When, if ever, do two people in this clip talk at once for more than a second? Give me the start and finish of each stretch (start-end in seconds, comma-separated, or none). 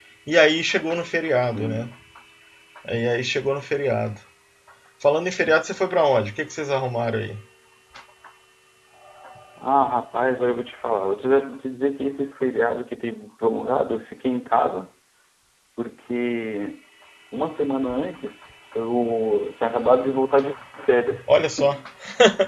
none